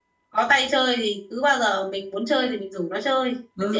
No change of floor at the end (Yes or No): No